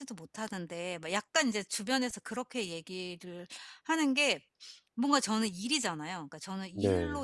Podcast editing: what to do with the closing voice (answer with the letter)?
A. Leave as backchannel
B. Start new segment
A